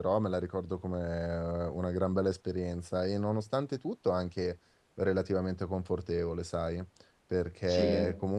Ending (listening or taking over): listening